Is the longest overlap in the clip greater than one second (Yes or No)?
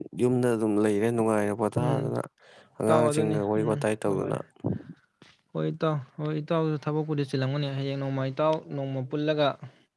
Yes